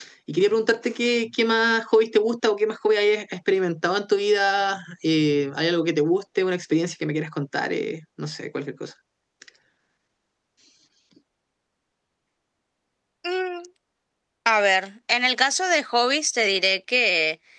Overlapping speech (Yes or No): No